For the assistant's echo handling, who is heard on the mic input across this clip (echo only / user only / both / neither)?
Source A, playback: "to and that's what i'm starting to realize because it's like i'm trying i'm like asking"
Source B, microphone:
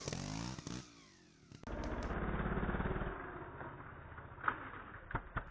neither